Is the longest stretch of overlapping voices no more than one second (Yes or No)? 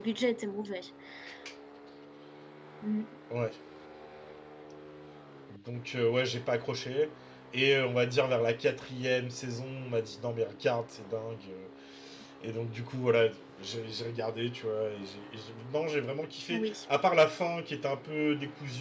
Yes